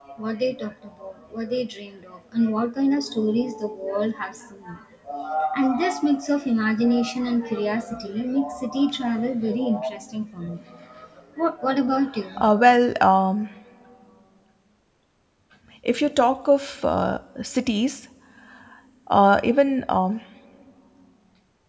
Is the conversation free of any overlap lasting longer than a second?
Yes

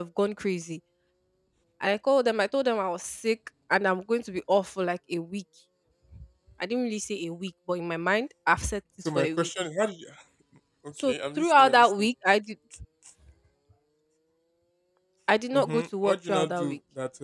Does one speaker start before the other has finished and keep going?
Yes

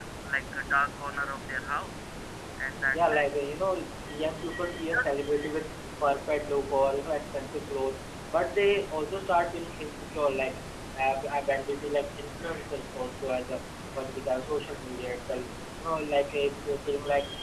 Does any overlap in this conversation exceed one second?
No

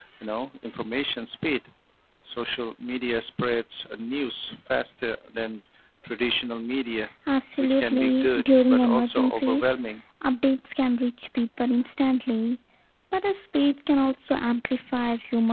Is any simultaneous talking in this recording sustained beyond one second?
Yes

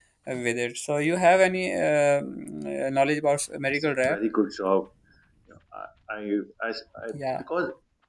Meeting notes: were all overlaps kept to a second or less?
Yes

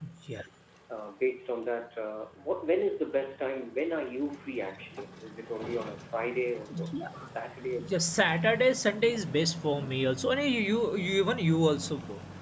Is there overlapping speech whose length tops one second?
No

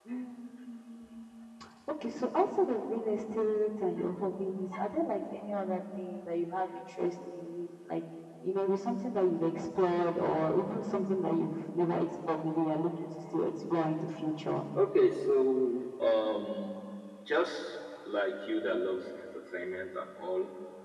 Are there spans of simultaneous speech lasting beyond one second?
No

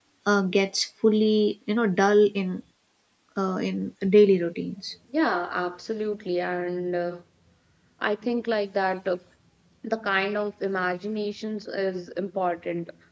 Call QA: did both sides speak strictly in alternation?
Yes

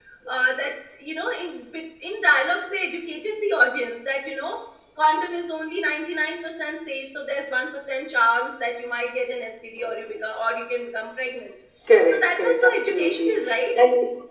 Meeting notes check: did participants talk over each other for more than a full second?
Yes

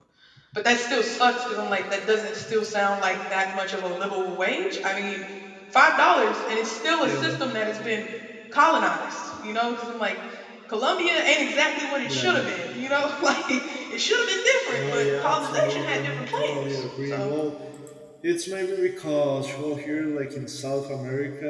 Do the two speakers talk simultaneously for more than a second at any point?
Yes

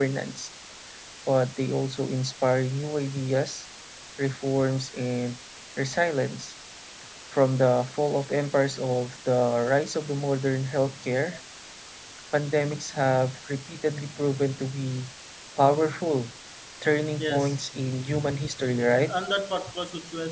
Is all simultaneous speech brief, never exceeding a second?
Yes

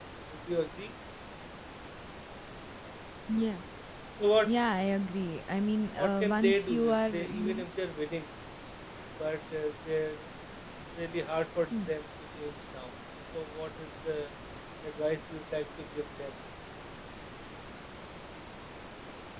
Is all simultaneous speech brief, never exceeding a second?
No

